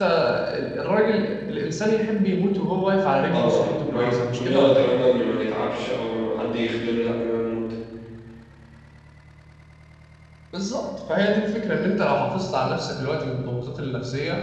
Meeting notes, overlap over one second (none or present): present